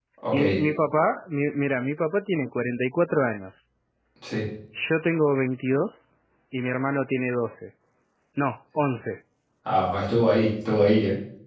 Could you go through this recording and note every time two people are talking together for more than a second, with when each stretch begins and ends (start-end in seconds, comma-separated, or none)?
none